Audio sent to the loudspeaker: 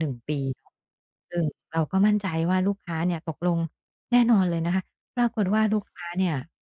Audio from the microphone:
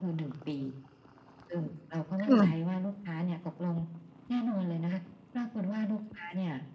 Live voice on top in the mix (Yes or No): Yes